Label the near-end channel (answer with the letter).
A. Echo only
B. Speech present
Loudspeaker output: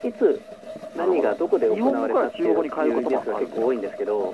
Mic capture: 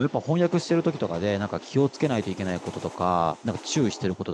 B